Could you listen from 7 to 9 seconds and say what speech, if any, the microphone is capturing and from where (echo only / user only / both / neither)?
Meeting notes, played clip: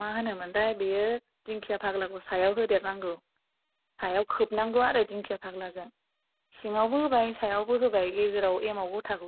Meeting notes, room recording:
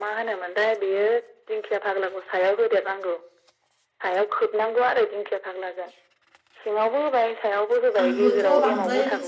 both